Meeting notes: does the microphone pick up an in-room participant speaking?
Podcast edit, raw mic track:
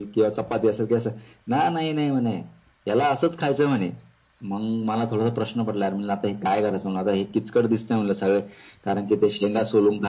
No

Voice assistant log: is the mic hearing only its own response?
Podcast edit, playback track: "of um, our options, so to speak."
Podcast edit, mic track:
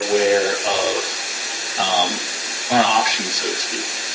Yes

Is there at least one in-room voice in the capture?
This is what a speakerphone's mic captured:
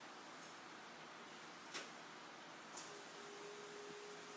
No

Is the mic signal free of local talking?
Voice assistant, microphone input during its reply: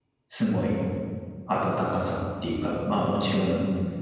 No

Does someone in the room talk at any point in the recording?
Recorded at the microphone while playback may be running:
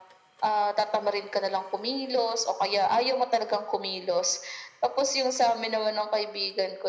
No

